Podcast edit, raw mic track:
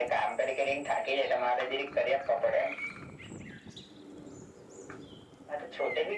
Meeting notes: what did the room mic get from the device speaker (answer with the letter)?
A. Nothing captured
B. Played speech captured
B